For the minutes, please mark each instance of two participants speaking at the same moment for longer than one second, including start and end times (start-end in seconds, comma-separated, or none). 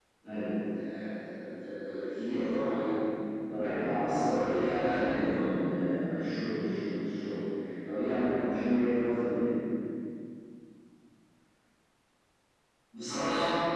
4.0-5.5